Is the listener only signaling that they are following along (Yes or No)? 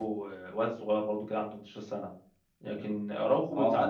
Yes